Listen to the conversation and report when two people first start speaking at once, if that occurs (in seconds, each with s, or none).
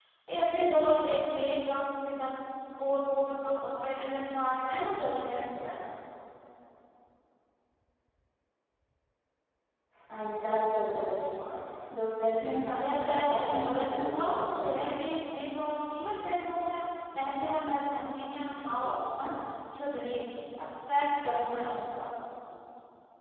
12.8 s